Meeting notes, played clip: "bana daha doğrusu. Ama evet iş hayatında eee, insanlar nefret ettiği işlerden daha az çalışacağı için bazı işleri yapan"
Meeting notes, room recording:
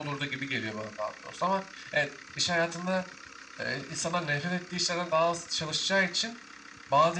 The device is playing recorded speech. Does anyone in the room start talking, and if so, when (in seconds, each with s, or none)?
none